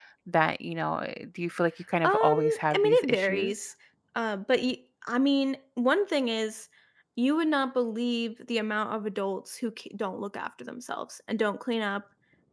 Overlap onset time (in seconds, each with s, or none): 2.0 s